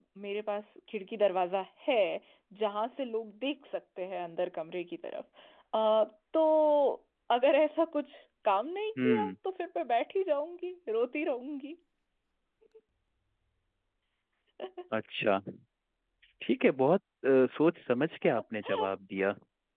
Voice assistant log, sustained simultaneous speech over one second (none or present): none